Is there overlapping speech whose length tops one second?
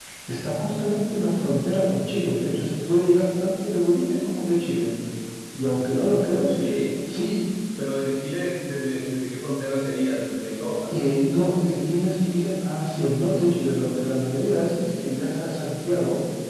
No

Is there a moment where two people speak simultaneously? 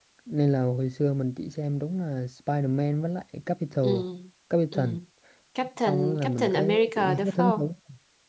Yes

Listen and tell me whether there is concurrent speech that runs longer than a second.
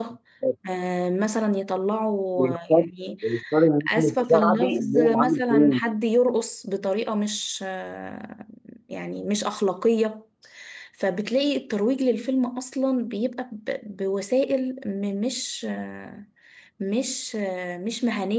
Yes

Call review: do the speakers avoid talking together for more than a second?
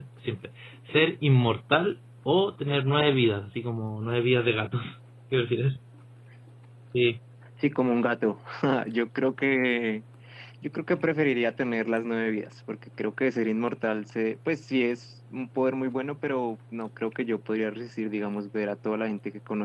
Yes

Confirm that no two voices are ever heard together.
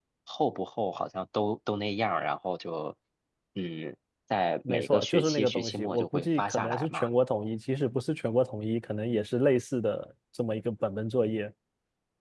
No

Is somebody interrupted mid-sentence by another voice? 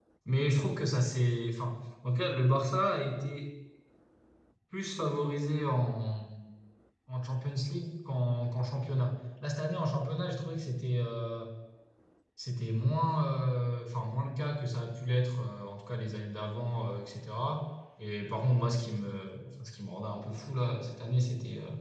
No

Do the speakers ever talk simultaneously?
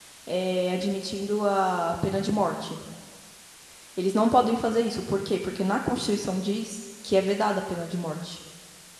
No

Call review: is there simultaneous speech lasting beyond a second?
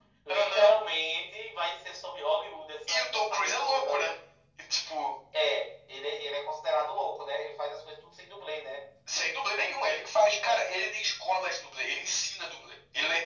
Yes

